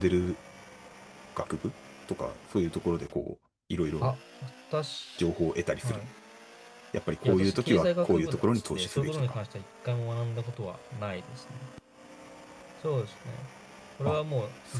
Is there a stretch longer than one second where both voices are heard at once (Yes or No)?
Yes